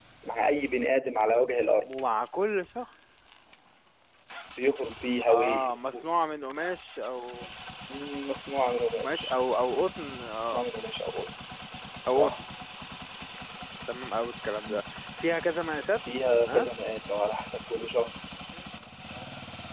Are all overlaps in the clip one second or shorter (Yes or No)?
Yes